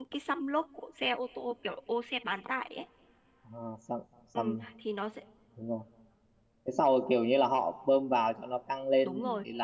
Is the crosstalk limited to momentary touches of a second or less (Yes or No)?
Yes